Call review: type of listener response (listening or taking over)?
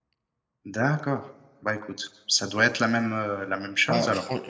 taking over